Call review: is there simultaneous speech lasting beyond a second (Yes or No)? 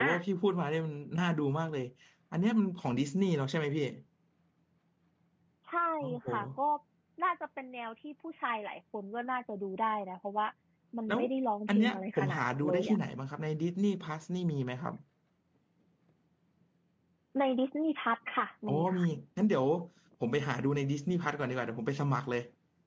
Yes